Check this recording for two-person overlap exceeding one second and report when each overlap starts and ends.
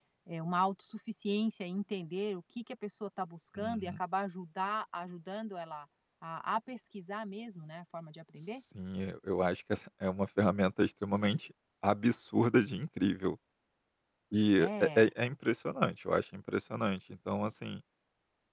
none

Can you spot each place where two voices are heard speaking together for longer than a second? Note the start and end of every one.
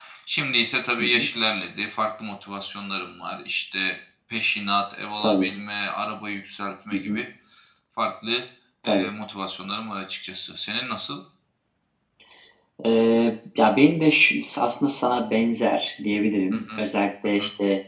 none

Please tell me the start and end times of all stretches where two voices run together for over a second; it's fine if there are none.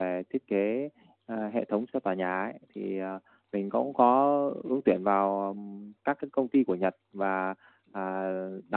none

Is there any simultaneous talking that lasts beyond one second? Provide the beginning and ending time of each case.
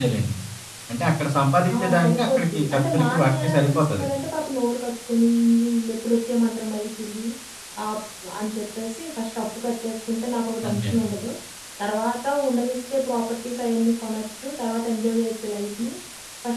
1.7-4.0

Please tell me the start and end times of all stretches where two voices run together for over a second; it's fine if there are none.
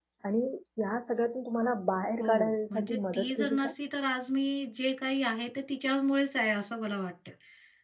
2.2-3.7

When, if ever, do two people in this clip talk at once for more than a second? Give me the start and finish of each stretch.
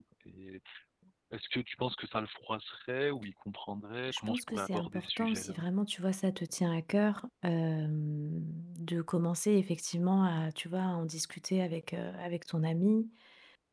4.1-5.6

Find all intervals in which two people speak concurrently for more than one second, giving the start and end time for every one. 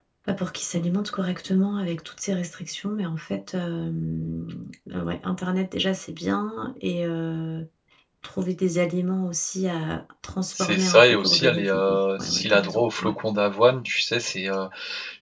10.6-13.1

